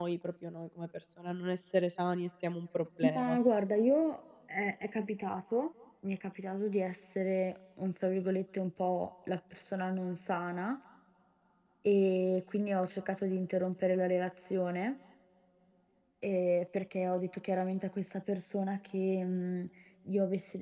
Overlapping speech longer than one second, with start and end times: none

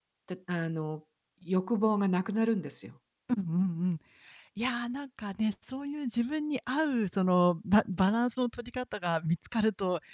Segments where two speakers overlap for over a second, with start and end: none

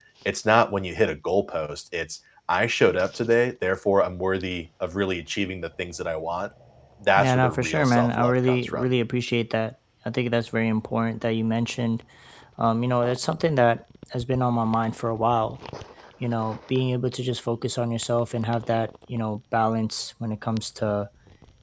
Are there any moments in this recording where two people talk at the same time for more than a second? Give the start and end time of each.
7.2-8.9

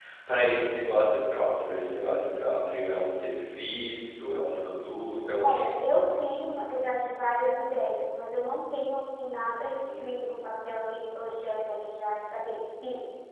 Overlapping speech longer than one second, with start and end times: none

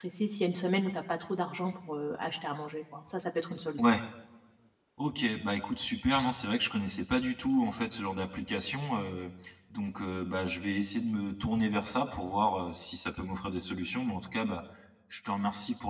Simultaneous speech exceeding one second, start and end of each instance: none

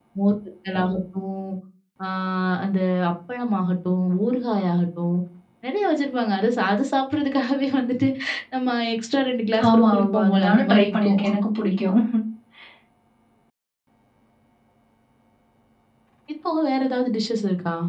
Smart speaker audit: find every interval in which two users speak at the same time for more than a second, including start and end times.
9.7-11.2

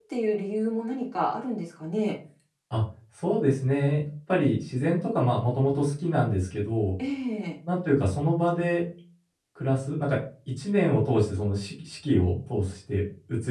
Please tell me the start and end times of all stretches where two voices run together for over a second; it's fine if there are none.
none

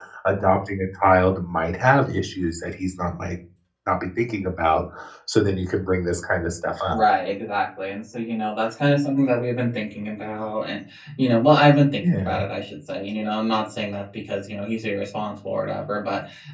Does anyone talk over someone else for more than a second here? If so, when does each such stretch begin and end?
none

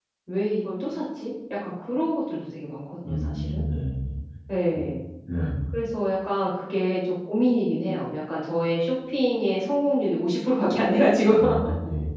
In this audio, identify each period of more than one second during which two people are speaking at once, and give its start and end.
none

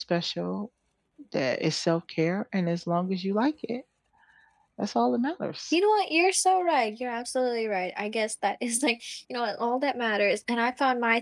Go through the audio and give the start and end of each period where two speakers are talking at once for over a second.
none

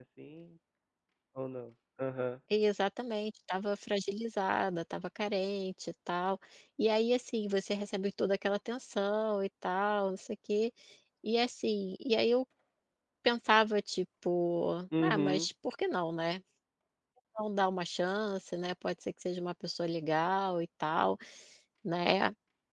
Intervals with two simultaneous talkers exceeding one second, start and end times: none

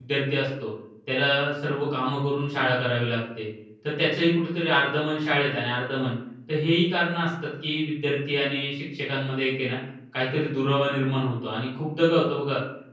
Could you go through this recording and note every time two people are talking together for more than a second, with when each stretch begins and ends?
none

